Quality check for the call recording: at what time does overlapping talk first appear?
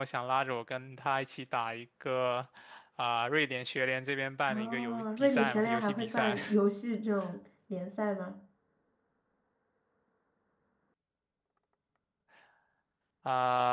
4.5 s

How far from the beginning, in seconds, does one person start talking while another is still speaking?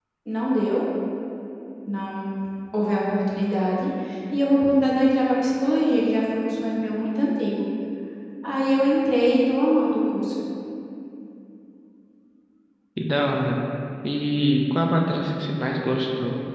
none

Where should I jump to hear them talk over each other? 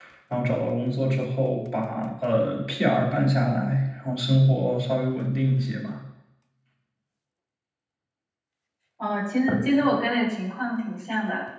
none

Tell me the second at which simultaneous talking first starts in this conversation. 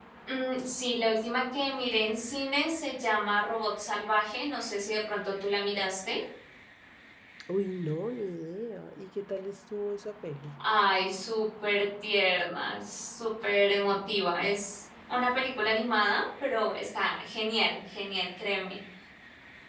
none

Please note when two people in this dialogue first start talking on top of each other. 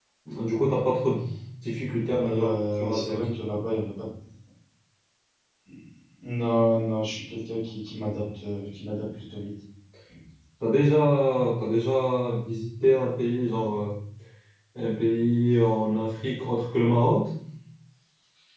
1.9 s

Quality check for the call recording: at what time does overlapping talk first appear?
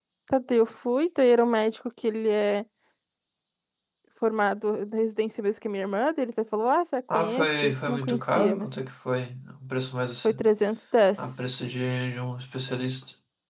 7.1 s

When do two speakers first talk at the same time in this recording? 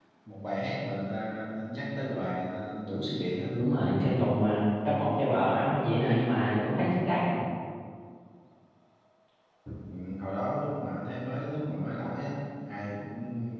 none

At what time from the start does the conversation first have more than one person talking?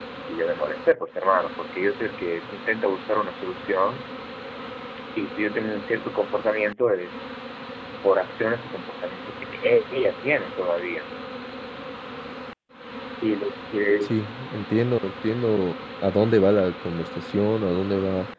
none

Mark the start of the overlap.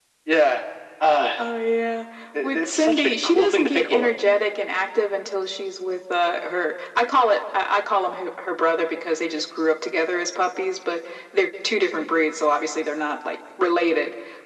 2.4 s

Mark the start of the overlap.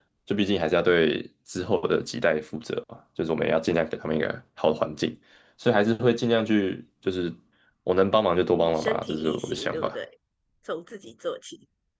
8.6 s

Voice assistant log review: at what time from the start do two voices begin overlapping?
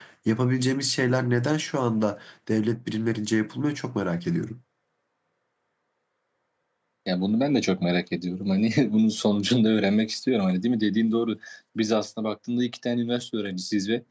none

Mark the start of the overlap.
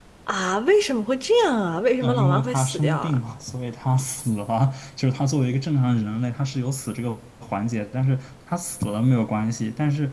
2.0 s

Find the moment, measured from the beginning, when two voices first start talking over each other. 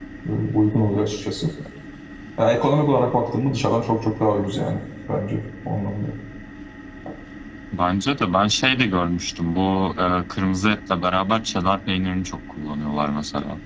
none

